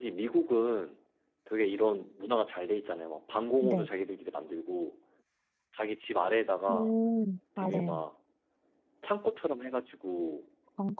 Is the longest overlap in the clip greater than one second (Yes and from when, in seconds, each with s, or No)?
No